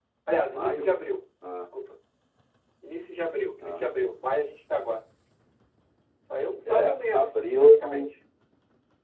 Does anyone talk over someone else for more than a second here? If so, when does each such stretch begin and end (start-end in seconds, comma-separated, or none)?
6.7-8.0